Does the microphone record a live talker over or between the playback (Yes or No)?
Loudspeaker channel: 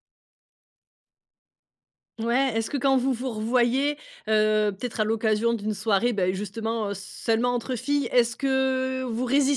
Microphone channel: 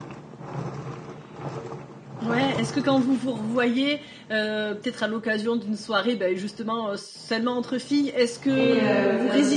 Yes